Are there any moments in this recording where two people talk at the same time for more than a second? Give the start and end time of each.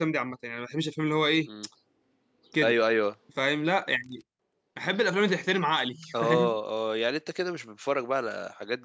none

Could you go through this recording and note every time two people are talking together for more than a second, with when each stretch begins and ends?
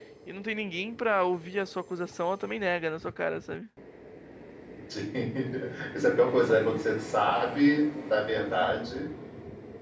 none

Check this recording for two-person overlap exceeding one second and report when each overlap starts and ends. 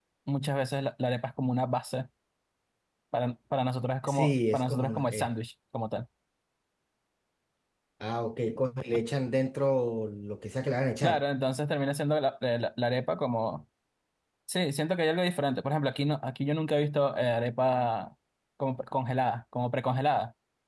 4.0-5.3

